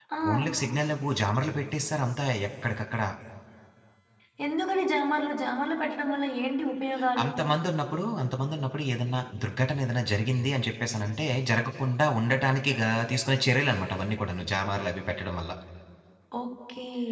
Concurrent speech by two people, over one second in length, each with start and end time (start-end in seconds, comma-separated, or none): none